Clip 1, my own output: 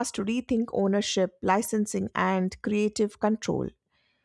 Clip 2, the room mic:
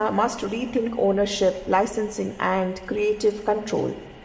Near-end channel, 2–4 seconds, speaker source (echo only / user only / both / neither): echo only